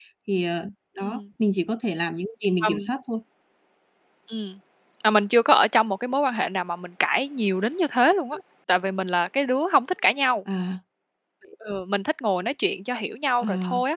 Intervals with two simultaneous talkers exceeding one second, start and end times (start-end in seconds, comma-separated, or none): none